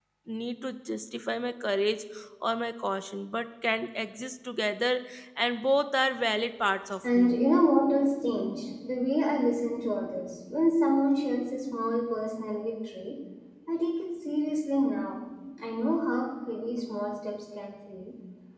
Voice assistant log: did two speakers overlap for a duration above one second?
No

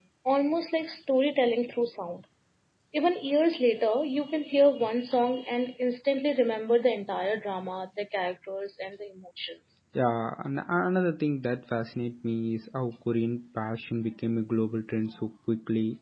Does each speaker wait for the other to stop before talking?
Yes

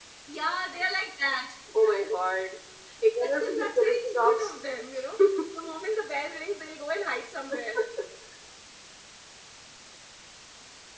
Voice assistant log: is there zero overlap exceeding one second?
No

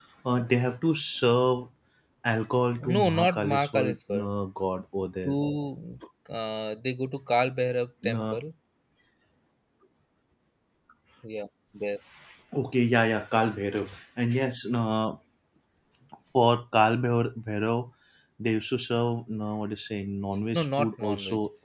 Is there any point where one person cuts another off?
Yes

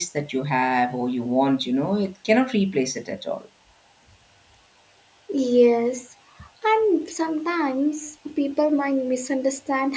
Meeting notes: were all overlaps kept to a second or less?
Yes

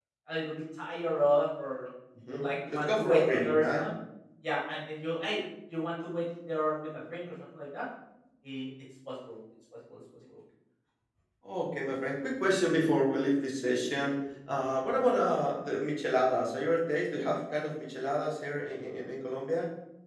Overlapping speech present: Yes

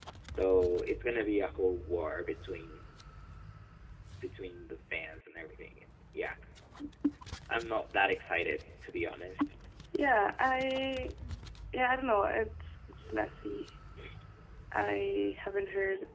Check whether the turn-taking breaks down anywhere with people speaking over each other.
No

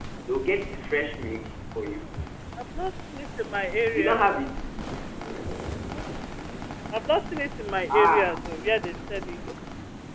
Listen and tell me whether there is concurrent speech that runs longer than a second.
No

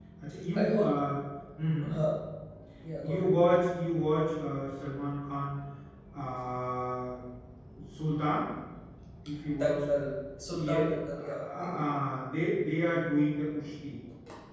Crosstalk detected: Yes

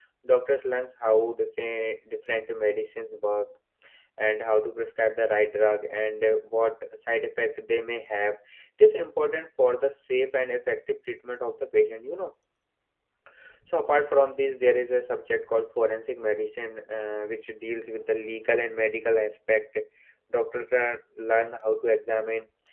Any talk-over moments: No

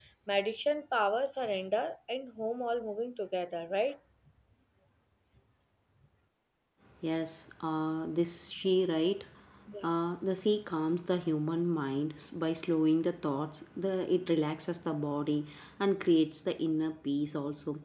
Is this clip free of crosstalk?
Yes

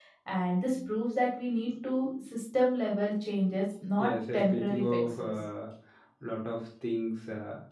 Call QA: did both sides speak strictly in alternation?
No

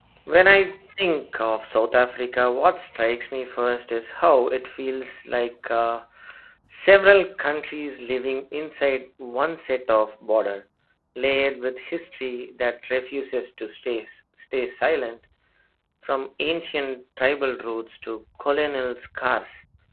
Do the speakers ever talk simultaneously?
No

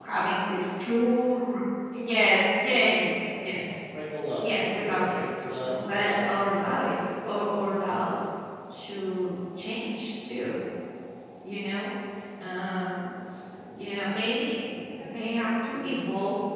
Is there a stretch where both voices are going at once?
Yes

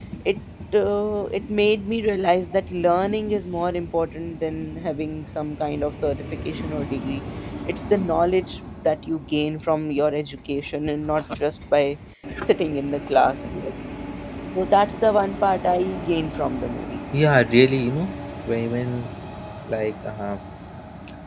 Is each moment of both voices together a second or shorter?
Yes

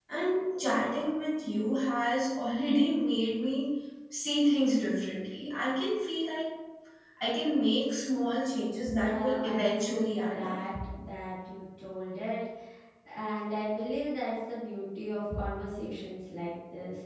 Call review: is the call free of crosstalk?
No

